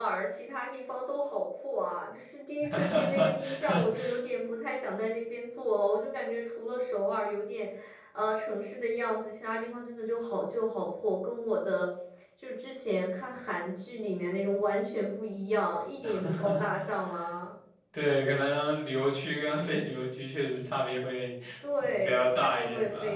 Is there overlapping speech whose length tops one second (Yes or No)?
Yes